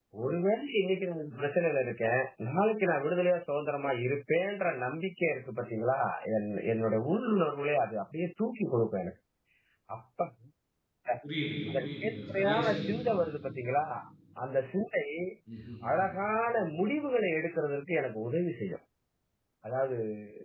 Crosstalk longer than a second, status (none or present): present